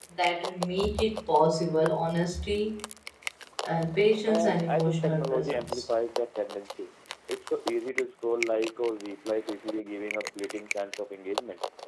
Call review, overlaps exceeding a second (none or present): present